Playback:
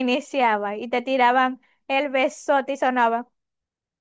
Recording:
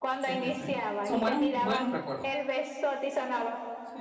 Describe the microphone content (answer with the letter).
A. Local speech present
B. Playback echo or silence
A